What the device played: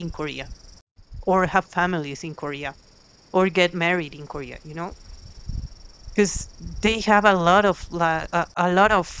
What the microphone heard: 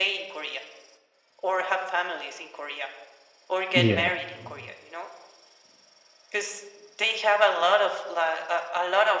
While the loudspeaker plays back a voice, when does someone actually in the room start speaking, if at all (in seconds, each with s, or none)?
3.7 s